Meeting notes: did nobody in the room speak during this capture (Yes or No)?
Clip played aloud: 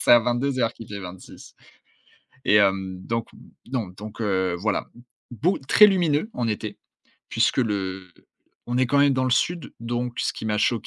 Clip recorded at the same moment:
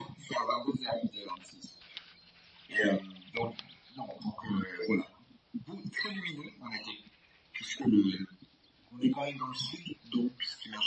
Yes